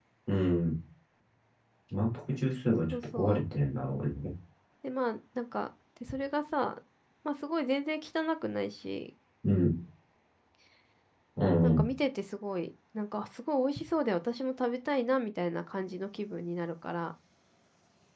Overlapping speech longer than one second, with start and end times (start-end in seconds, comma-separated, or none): none